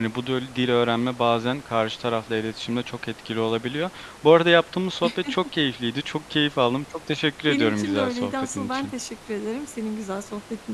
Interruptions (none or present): present